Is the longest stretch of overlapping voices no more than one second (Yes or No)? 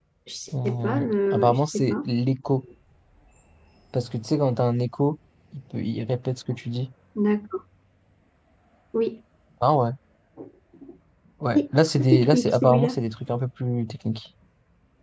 No